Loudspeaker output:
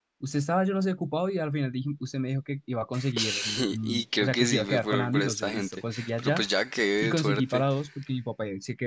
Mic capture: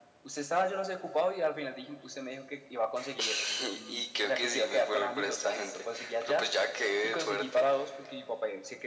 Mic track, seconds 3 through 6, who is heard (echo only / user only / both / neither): echo only